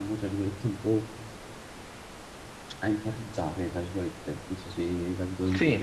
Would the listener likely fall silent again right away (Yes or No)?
Yes